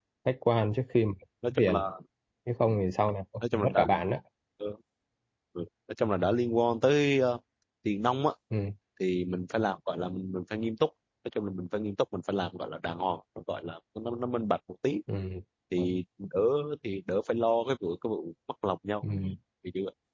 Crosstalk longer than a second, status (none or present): none